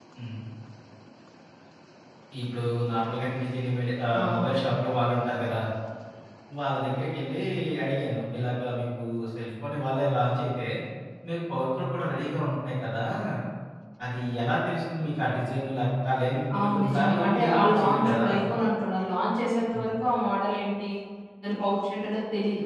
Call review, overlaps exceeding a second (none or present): present